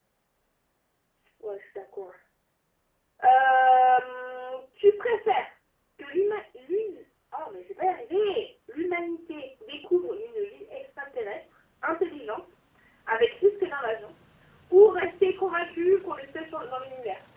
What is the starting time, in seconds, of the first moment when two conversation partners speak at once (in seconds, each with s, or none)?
none